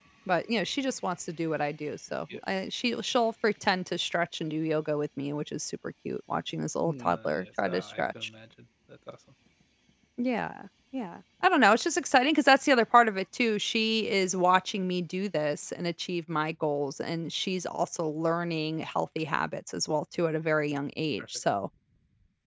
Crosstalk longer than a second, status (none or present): present